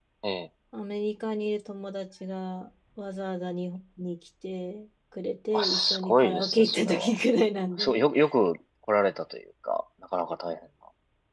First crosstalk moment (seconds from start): 5.5 s

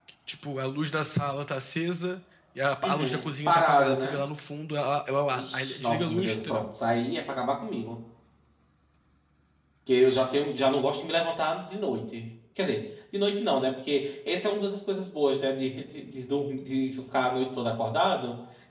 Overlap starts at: 2.8 s

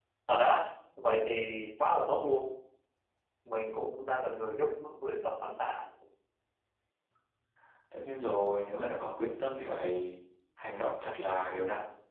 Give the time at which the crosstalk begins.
none

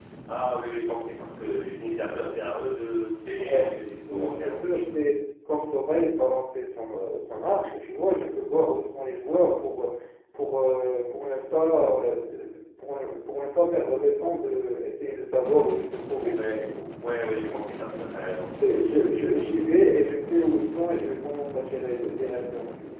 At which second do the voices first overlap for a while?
3.4 s

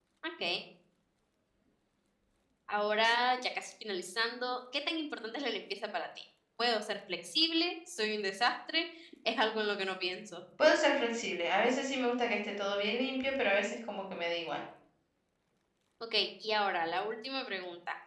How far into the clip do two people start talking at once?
none

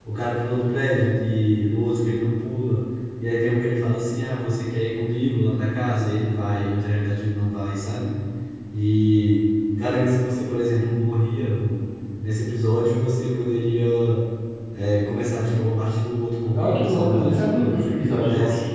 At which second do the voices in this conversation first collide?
16.5 s

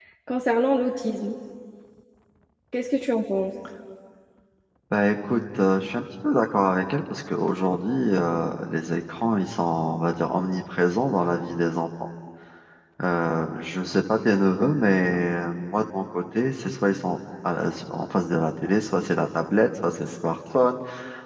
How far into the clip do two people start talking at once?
none

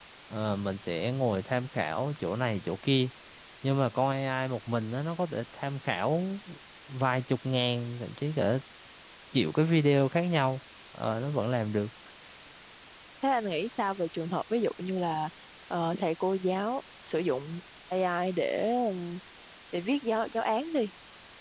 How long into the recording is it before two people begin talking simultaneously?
none

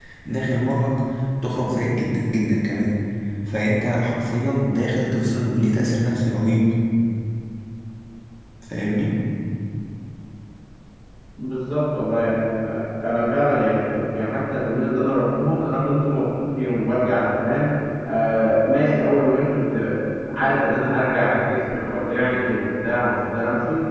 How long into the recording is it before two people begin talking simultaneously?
none

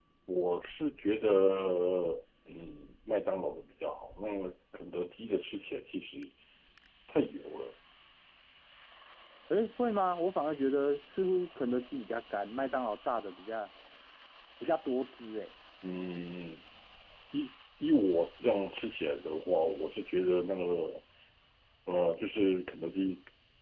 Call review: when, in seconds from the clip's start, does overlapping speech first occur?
none

